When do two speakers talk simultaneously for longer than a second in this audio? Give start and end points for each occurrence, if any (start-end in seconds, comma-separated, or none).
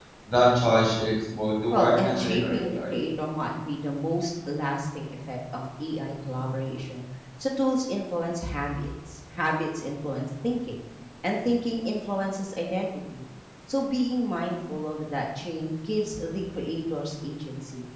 1.7-2.9